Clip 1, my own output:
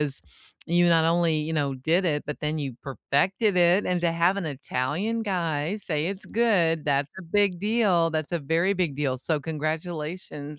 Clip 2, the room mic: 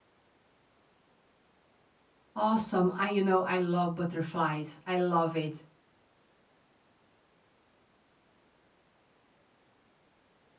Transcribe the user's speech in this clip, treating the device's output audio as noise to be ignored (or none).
Awesome. I you know I love butterflies. I love it.